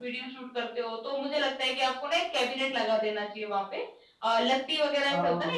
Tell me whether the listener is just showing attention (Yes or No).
Yes